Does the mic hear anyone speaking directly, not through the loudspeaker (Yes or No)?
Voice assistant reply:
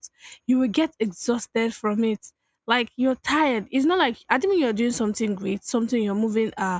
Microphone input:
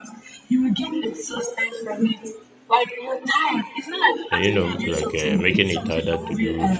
Yes